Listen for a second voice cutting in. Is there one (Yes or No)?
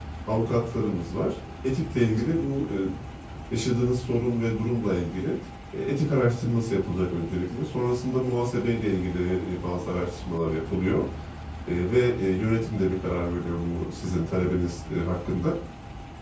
No